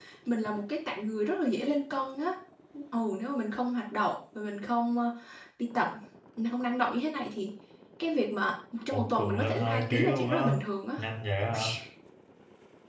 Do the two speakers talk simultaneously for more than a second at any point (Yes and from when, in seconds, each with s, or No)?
Yes, from 8.9 s